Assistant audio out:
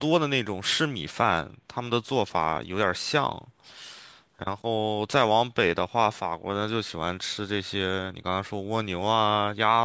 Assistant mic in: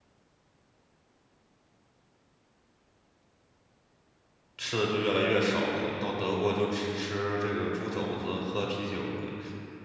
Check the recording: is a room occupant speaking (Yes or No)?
Yes